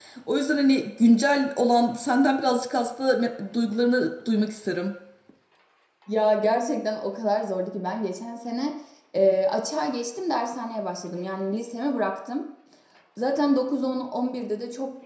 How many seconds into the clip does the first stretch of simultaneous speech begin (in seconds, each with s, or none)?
none